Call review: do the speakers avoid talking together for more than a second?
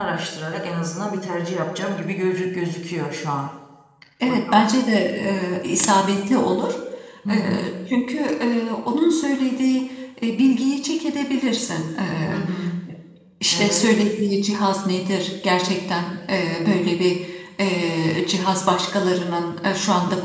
Yes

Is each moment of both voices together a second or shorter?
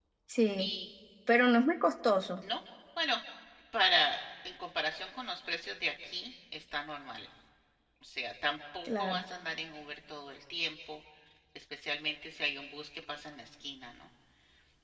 Yes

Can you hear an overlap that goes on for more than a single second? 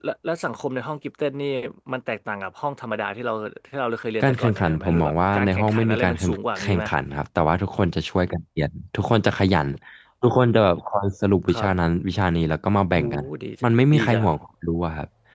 Yes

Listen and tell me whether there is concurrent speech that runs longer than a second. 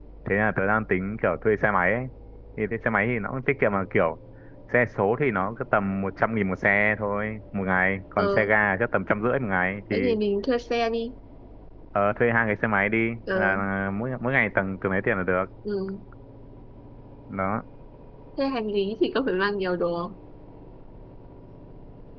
No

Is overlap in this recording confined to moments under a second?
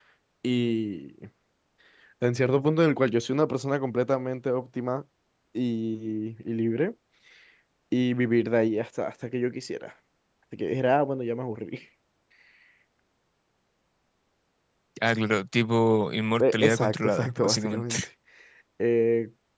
No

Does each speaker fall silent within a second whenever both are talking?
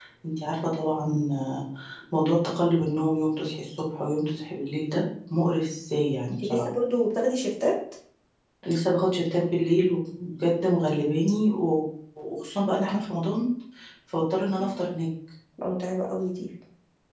Yes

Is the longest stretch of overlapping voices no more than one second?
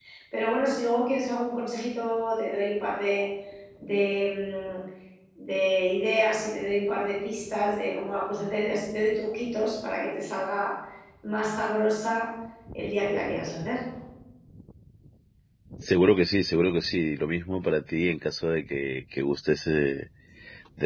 Yes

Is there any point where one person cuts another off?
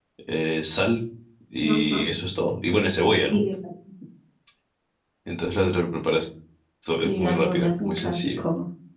Yes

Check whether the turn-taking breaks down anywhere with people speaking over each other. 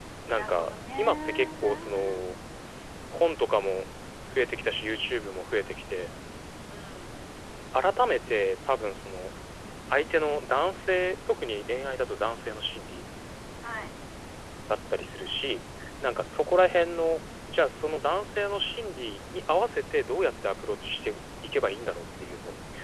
Yes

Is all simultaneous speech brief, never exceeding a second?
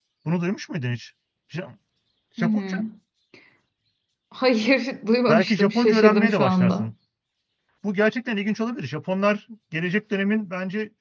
No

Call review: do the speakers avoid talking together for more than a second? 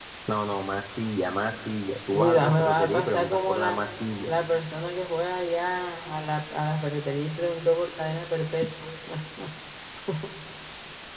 No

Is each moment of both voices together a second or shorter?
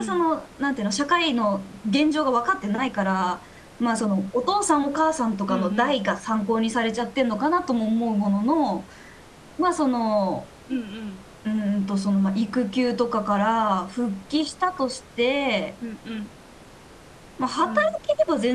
Yes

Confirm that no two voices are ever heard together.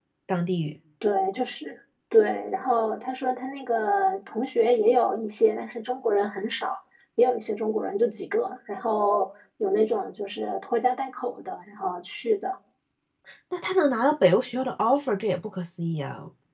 Yes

